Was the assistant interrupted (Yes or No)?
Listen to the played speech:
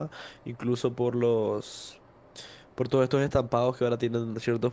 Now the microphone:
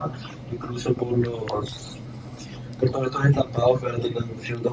No